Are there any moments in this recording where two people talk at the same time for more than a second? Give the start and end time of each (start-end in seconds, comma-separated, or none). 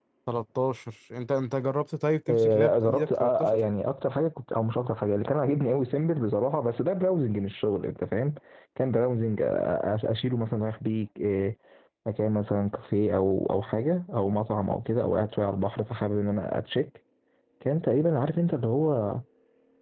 2.3-3.6